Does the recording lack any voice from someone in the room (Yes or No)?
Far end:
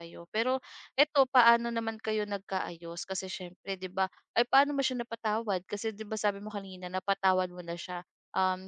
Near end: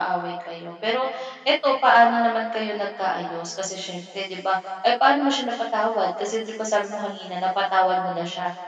Yes